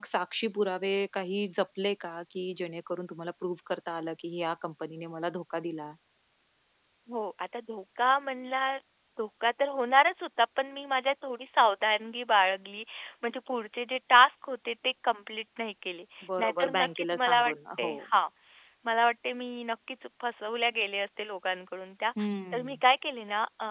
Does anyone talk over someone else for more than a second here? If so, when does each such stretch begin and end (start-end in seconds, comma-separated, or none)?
16.4-18.0